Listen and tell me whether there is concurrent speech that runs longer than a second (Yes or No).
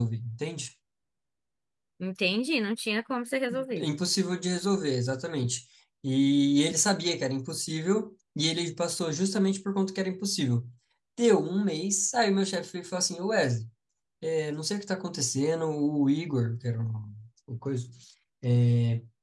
No